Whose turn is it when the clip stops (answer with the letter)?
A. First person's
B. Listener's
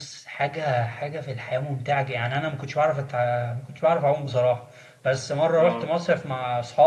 A